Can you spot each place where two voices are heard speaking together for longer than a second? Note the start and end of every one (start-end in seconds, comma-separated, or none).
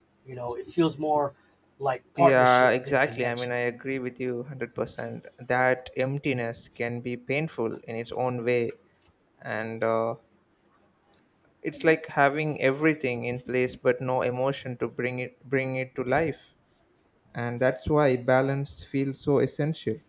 2.2-3.5